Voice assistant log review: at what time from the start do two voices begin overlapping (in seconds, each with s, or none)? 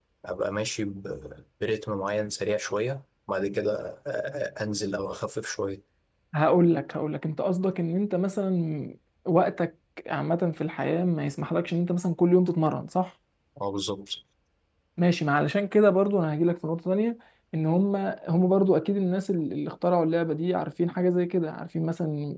none